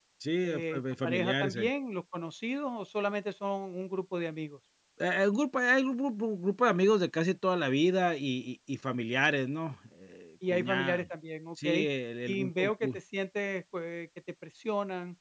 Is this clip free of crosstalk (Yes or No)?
No